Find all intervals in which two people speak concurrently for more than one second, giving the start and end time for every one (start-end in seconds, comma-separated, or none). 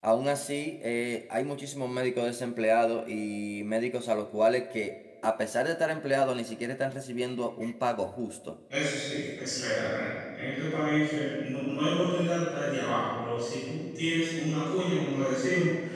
none